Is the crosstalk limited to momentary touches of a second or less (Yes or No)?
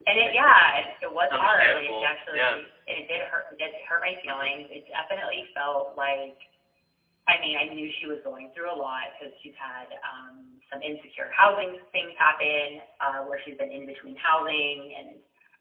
No